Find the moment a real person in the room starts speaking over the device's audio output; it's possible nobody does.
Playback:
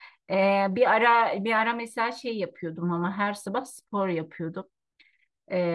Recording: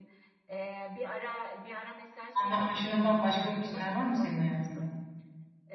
2.4 s

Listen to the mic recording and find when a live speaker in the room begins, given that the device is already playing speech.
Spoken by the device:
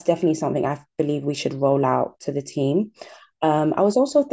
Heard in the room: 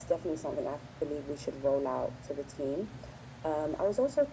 none

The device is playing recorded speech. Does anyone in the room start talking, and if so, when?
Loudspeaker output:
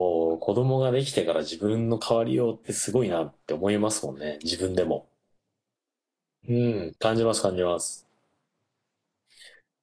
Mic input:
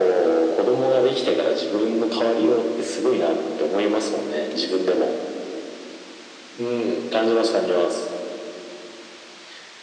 none

